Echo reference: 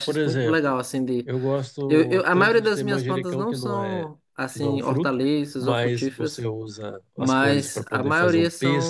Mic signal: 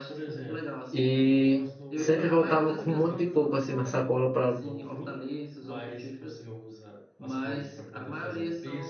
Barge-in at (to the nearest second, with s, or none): 1 s